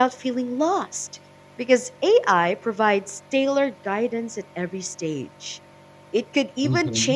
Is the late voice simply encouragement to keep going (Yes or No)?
Yes